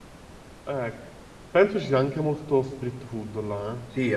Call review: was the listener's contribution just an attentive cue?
No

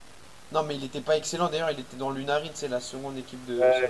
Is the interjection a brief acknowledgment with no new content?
No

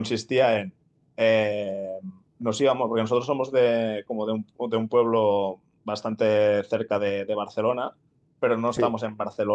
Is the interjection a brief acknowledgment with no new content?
Yes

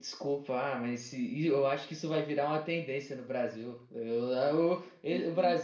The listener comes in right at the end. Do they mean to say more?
No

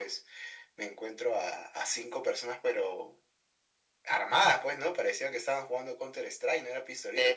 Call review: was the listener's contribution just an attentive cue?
No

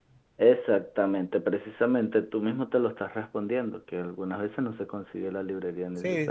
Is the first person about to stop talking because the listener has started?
Yes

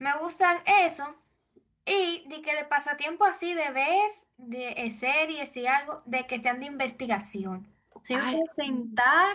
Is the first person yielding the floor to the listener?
No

